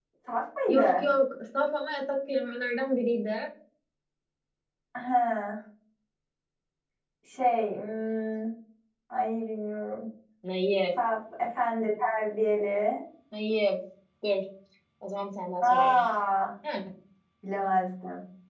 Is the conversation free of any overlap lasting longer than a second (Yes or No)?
Yes